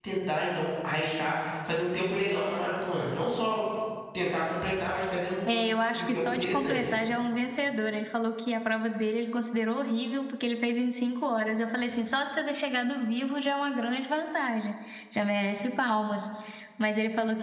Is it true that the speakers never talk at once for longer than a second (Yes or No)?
No